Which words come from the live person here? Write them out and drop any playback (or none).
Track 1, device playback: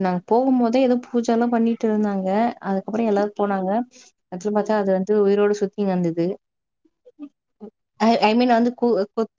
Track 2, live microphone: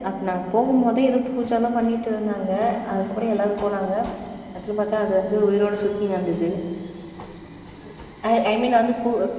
none